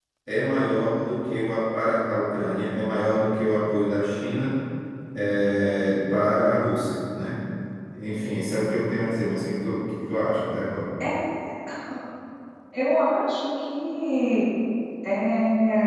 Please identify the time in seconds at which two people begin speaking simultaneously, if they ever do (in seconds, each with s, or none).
none